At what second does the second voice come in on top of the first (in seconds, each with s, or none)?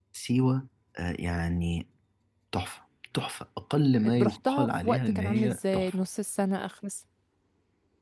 4.0 s